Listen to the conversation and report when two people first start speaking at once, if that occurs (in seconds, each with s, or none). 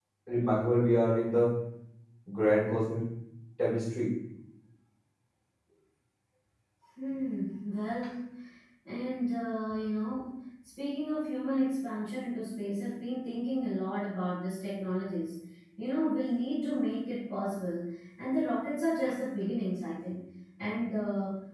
none